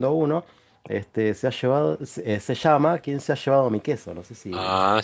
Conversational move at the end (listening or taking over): taking over